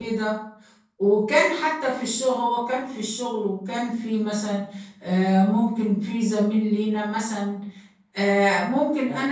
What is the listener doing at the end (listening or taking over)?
listening